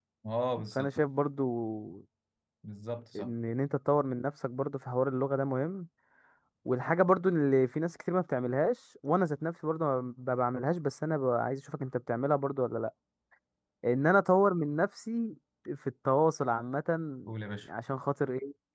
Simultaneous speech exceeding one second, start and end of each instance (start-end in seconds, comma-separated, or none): none